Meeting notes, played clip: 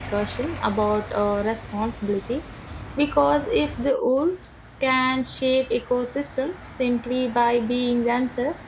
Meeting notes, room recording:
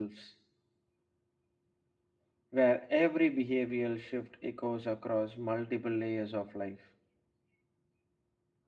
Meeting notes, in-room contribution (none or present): present